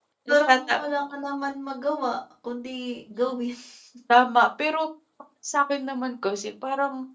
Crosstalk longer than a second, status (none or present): none